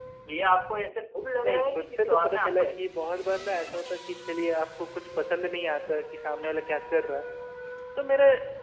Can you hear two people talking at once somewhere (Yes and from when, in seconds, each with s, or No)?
Yes, from 1.4 s